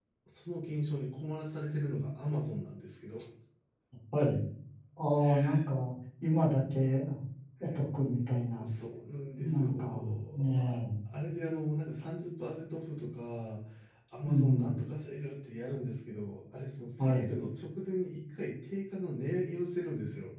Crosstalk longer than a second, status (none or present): present